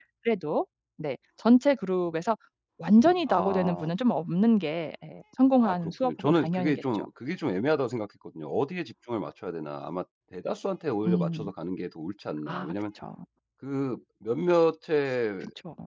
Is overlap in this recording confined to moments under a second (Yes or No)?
No